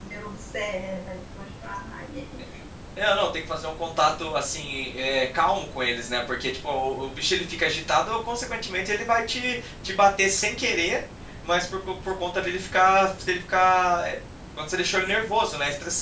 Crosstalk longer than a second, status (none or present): none